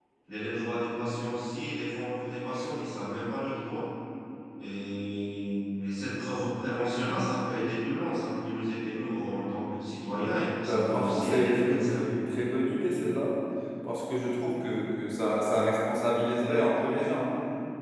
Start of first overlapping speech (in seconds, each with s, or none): 10.6 s